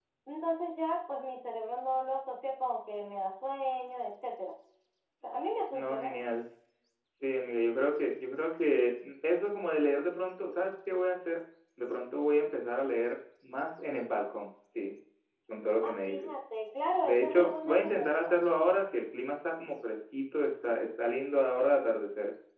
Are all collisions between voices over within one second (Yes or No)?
No